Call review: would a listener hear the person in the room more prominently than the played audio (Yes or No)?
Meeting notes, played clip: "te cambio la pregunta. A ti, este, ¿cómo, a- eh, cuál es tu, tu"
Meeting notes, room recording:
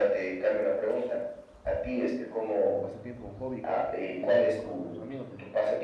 No